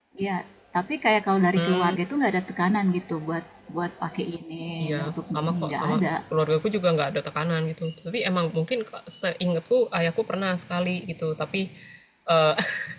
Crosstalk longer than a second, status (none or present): present